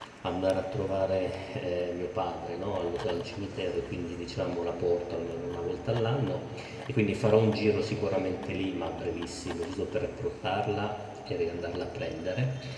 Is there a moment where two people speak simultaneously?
No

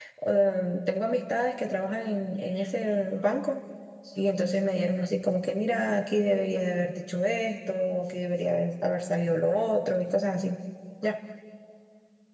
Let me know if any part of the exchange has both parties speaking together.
No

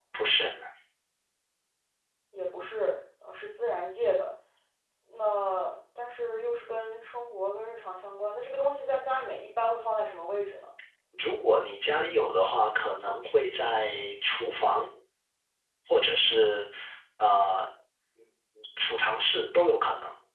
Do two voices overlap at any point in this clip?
No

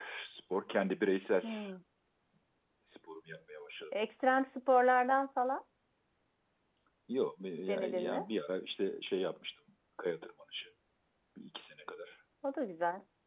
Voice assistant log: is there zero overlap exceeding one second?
Yes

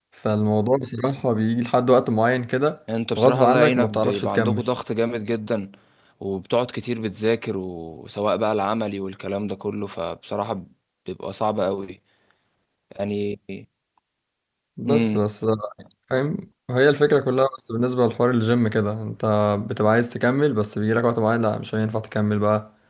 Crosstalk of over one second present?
Yes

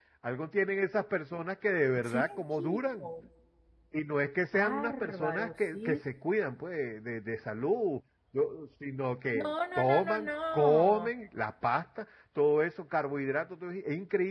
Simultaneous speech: Yes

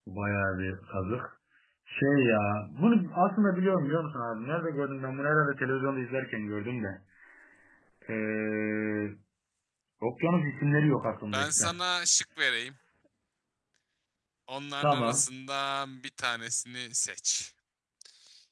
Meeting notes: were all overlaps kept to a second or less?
Yes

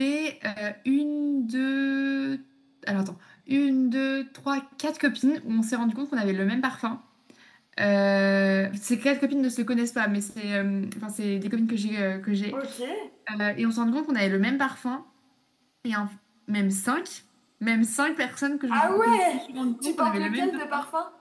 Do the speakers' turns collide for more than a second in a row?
Yes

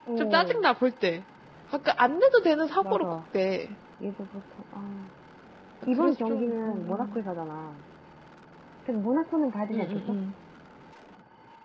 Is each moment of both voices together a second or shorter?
No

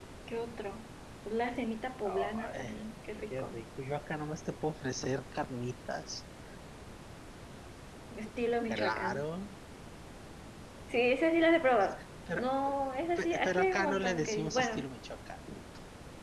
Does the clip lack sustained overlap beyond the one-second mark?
No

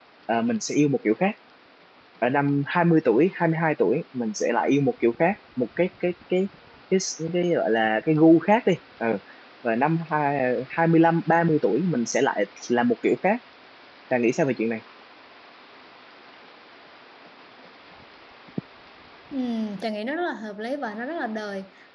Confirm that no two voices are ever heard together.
Yes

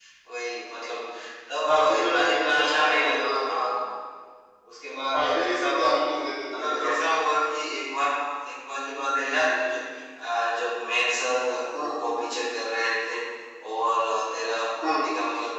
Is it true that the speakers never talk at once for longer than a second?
No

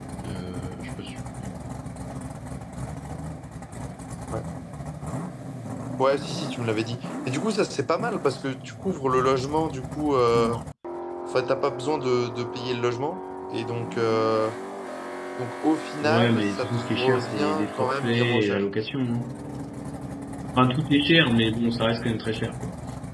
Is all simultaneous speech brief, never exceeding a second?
No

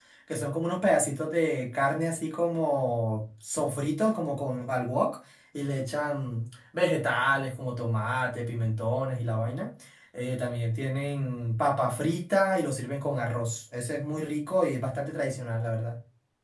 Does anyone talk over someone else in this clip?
No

